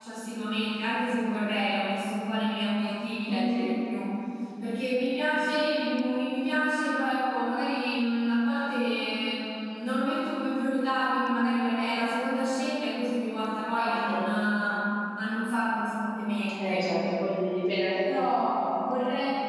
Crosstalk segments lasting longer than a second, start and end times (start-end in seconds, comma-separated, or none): none